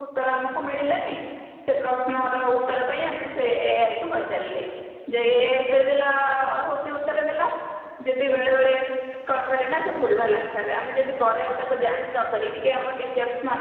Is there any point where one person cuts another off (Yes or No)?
No